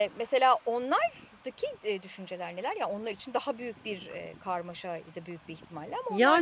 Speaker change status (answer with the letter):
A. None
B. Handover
B